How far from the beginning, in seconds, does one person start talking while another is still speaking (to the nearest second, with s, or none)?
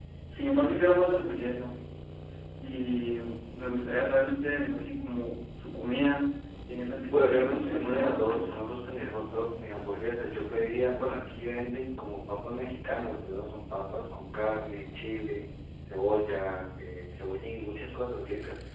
7 s